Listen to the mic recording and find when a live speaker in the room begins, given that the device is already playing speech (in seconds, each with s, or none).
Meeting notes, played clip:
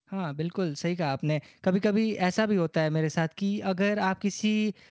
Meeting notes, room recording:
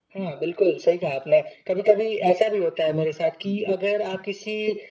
none